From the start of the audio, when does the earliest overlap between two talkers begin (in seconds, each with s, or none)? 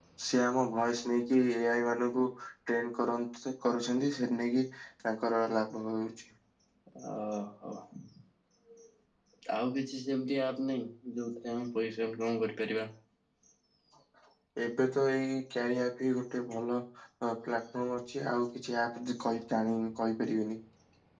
none